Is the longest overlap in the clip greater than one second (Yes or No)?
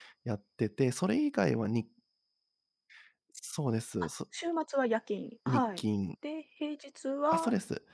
No